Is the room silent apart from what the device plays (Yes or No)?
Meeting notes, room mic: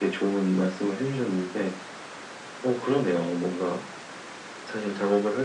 Yes